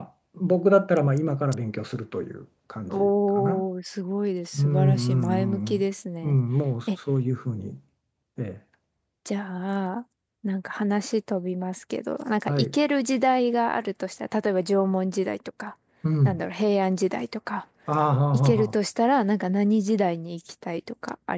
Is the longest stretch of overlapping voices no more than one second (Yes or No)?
No